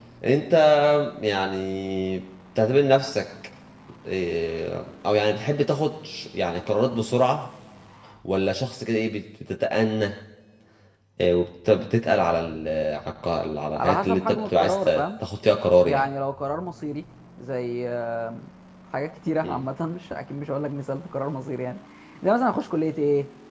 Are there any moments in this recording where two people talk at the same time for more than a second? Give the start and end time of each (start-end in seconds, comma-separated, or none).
13.8-15.0